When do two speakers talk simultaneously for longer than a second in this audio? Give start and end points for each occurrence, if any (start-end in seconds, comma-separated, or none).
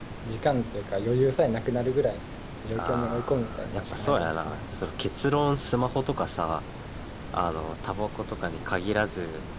2.8-4.6